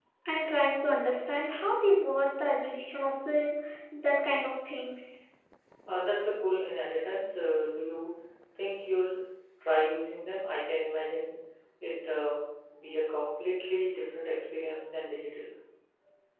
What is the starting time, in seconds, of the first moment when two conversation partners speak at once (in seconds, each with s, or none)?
none